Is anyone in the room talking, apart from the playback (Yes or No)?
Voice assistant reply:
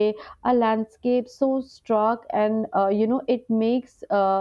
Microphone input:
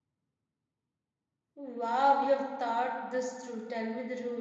Yes